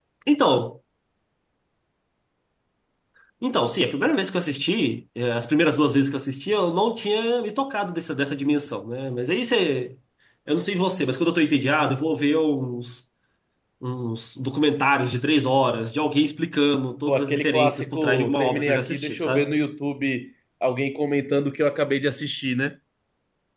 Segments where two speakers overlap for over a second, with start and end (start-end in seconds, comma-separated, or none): 17.1-19.6